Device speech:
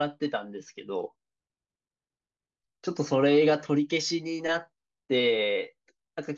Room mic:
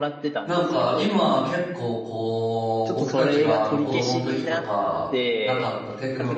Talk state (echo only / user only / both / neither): both